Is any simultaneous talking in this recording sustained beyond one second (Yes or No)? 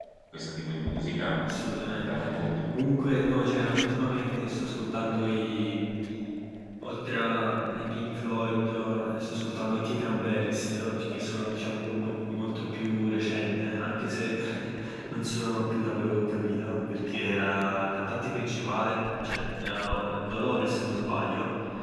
No